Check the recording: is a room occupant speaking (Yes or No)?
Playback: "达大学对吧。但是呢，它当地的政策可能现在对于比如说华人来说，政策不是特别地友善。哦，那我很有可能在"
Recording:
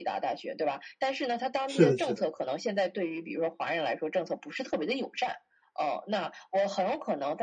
Yes